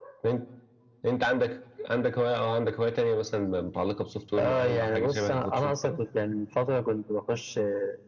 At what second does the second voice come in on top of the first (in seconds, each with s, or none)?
4.3 s